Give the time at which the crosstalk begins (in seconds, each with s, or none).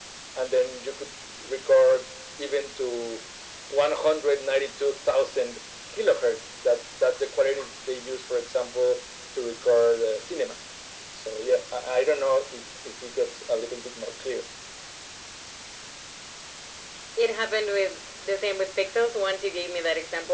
none